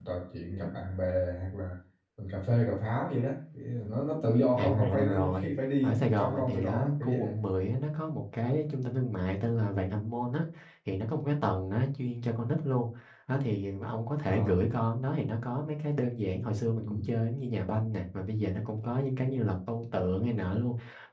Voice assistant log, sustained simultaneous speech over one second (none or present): present